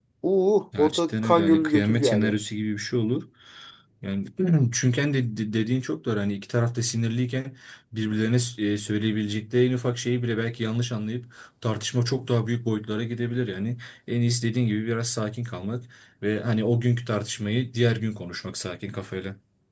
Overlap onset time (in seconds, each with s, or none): 0.8 s